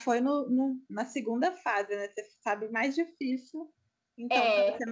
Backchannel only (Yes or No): Yes